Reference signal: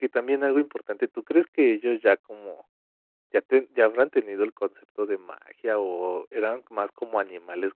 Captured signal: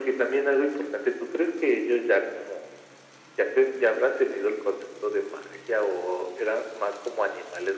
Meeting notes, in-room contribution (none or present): none